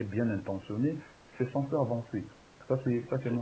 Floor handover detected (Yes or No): Yes